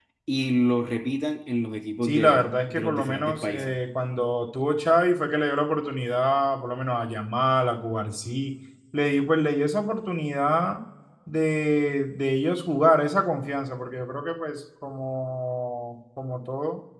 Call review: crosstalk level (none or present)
present